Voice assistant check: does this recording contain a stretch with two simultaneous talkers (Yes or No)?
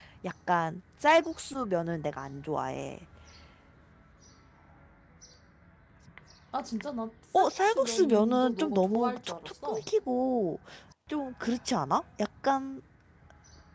Yes